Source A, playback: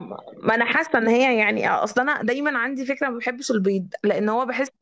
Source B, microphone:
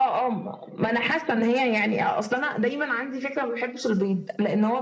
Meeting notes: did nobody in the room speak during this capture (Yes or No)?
Yes